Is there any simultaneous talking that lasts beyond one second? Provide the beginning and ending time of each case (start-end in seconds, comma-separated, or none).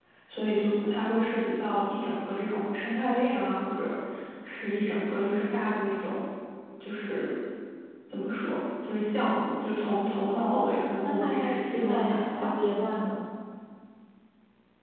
10.3-12.5